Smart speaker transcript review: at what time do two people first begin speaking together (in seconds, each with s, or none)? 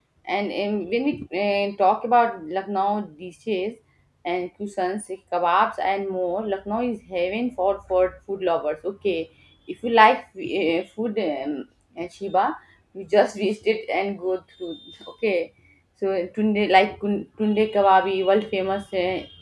none